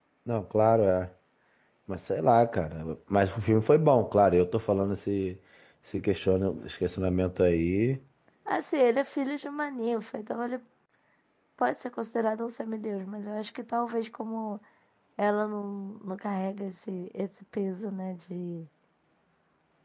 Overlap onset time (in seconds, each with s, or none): none